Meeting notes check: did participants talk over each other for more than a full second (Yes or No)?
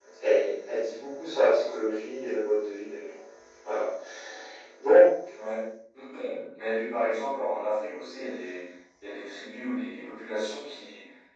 No